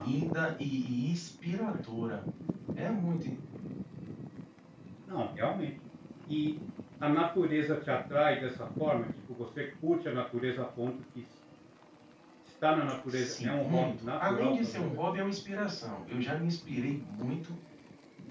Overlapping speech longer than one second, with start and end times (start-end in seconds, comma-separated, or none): 13.1-15.0